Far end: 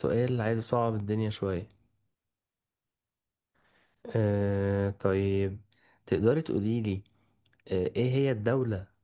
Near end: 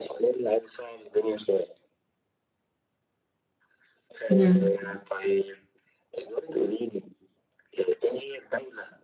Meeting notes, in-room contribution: present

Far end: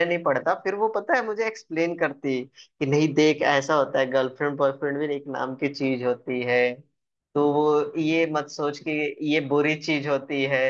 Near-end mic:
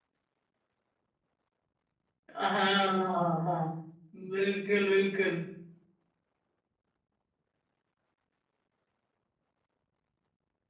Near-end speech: present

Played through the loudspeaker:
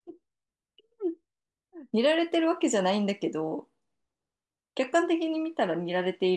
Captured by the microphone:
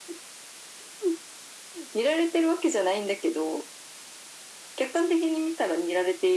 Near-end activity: none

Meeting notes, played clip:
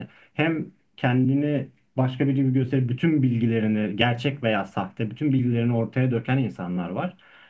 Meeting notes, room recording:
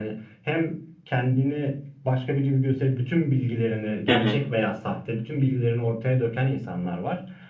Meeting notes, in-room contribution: present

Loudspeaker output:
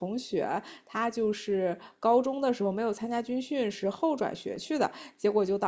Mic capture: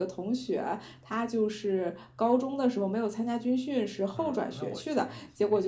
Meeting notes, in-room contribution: present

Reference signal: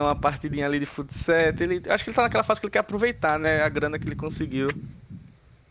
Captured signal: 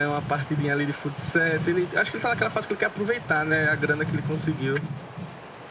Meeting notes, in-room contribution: none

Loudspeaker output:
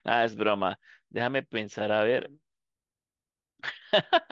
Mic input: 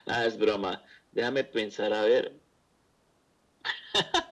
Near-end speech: none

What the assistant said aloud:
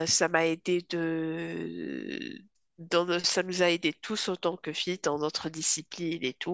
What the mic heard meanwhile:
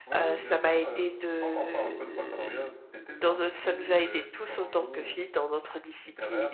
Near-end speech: present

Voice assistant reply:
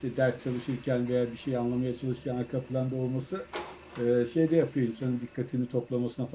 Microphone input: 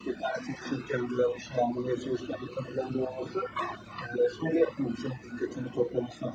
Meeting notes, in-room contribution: none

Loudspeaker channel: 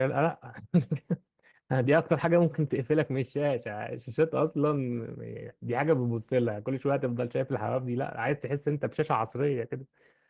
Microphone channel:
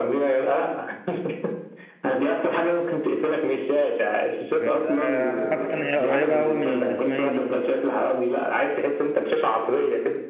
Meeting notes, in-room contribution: present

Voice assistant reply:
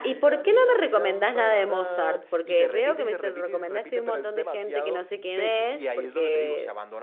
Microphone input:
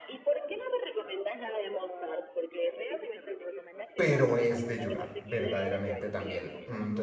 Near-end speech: present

